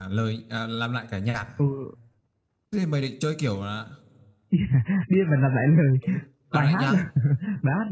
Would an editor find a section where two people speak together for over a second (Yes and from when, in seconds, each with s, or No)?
No